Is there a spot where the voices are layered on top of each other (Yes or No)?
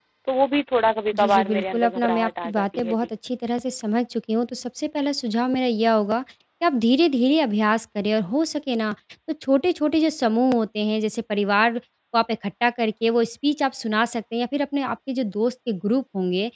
Yes